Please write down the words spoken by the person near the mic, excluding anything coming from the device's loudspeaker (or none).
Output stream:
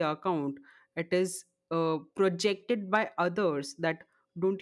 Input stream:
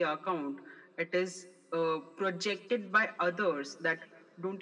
none